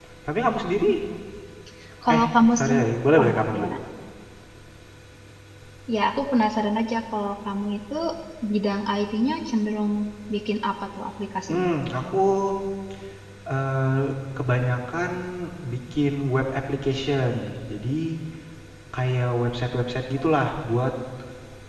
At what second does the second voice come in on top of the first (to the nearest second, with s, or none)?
2 s